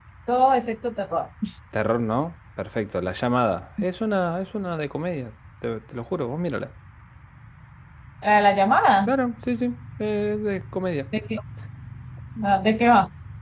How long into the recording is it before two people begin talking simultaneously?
none

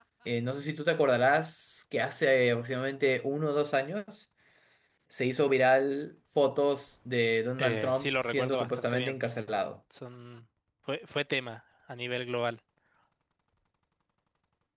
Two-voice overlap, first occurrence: 7.6 s

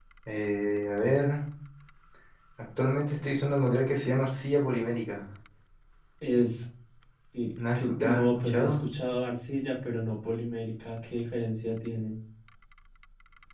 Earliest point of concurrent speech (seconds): 7.6 s

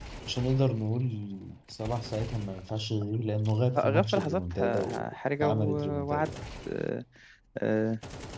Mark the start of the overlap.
3.8 s

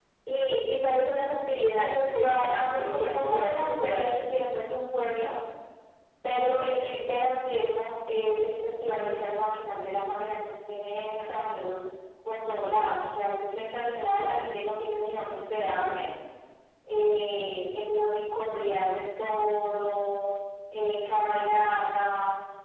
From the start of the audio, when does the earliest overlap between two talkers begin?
1.8 s

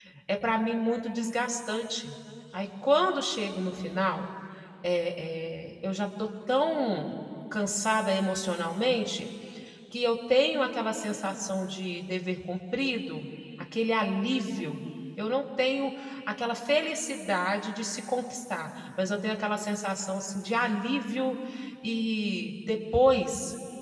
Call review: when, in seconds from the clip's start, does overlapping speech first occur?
none

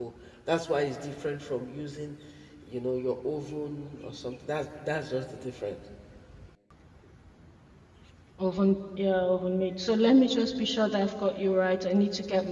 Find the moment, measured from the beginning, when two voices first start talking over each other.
none

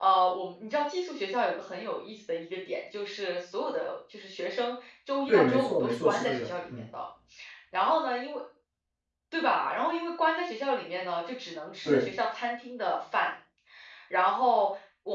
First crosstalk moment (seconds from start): 5.3 s

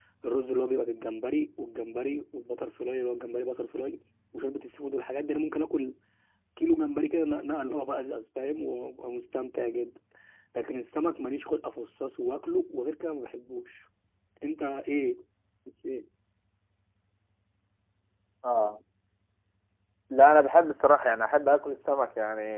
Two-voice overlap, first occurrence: none

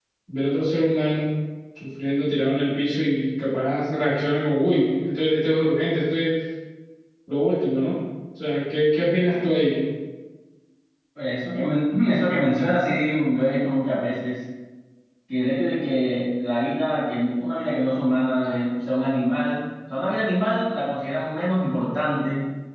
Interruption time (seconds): none

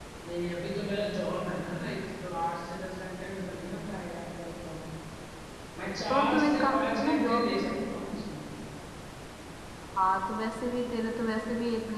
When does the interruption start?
6.1 s

